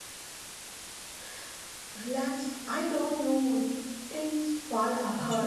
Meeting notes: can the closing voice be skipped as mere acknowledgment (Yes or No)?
No